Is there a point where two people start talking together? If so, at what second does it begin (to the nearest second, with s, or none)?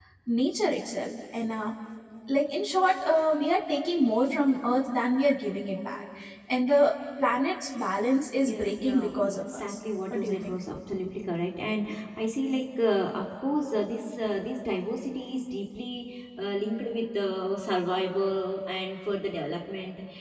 8 s